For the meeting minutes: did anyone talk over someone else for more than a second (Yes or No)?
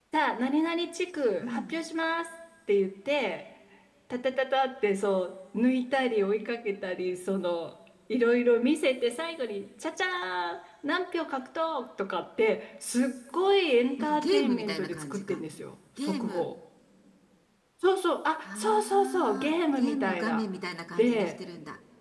Yes